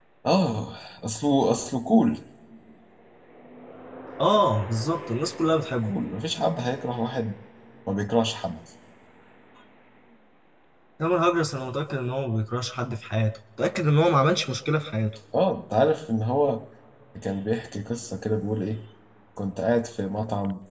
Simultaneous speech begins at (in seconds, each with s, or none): none